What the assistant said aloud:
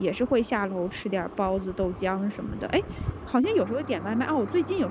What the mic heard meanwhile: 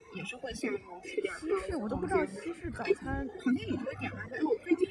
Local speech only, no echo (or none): 西式我都不知道西式早餐